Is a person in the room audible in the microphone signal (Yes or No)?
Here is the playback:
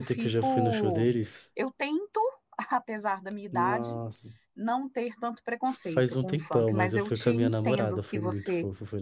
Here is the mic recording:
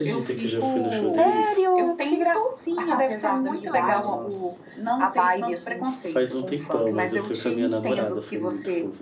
Yes